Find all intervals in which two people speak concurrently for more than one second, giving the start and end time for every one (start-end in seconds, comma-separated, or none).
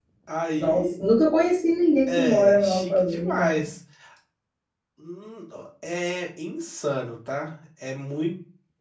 2.1-3.6